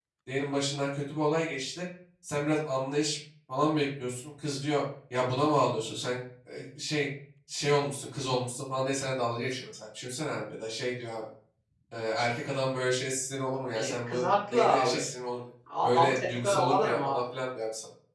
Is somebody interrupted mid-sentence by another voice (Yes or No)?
Yes